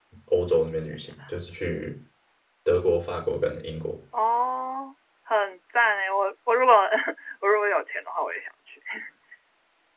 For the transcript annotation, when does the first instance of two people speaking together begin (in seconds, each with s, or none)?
none